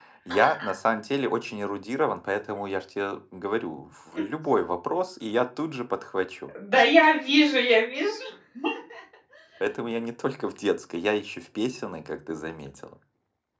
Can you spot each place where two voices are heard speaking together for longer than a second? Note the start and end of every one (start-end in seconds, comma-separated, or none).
none